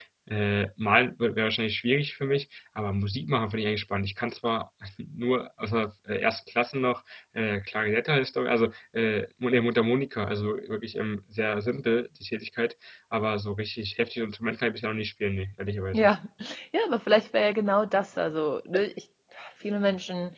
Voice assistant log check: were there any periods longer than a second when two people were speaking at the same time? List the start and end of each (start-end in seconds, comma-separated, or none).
none